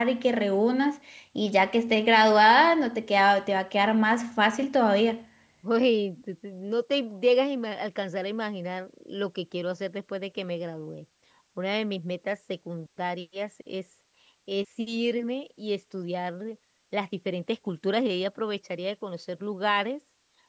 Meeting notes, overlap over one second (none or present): none